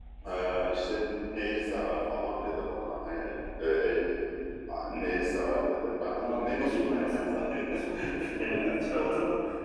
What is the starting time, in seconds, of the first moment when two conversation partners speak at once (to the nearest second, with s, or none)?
6 s